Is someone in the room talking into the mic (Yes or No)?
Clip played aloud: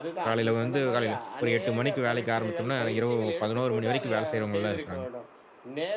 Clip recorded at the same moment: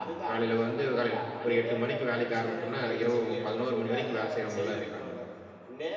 No